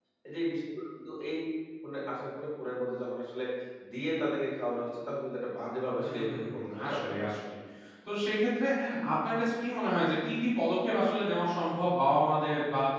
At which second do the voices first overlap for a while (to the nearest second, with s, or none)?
6 s